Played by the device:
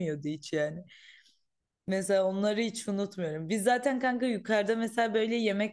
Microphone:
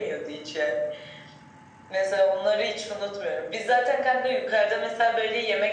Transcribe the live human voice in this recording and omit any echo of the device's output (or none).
none